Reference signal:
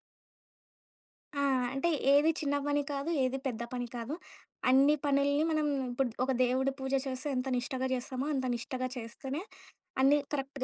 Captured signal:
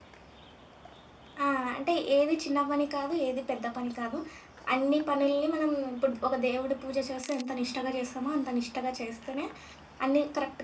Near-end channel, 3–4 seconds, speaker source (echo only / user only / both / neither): echo only